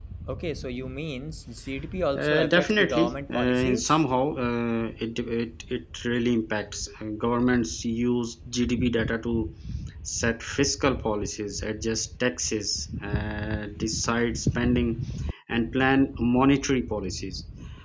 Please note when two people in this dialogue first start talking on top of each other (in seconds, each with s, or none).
2.1 s